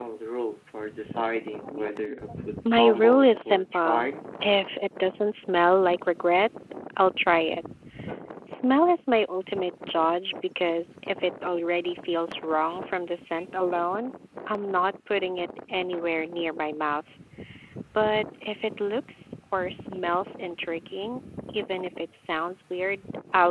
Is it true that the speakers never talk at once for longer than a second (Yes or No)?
No